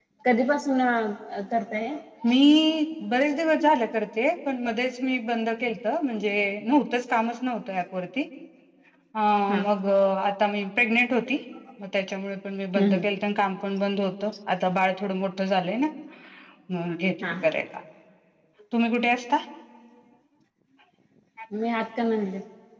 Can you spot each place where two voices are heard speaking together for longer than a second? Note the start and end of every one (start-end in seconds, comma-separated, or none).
none